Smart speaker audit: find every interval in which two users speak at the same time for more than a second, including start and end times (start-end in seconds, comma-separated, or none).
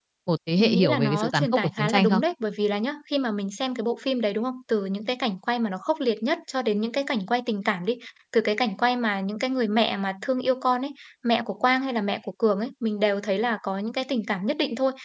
0.6-2.2